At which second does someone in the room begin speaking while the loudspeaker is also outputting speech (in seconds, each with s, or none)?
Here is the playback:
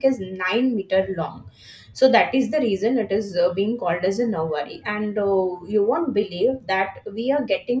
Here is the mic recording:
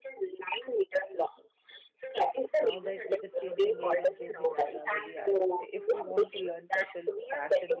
2.5 s